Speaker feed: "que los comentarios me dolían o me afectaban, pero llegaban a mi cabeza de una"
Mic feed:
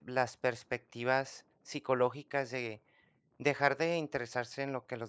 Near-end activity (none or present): present